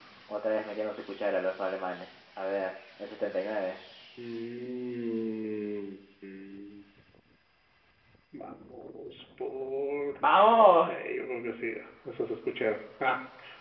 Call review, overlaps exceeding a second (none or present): none